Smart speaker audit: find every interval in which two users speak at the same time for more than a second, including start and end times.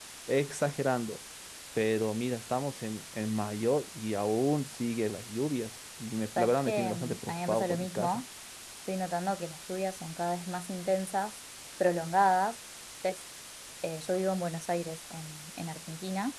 6.4-8.2

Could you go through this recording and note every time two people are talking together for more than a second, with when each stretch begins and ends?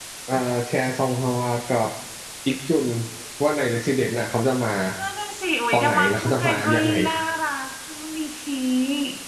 5.7-6.9

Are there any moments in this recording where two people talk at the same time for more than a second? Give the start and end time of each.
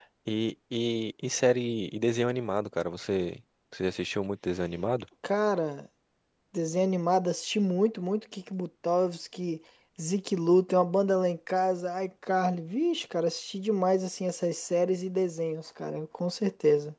none

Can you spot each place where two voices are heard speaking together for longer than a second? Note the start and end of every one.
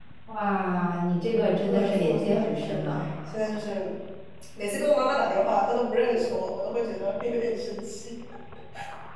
1.7-3.0

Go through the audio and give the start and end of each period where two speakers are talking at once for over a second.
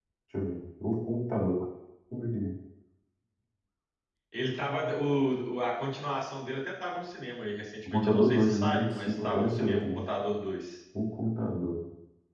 7.9-10.0

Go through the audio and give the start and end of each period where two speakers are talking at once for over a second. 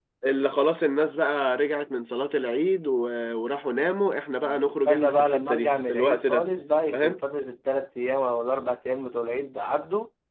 4.4-6.4

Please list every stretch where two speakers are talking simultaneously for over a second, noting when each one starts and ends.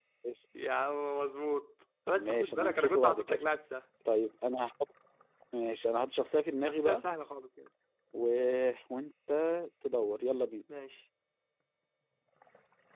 2.1-3.4

